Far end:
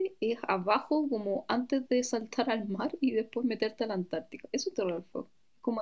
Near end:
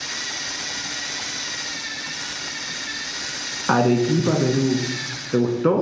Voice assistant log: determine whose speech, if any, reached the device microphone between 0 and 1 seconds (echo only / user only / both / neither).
neither